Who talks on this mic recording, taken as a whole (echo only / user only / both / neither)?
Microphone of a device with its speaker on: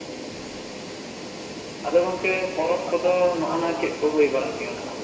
both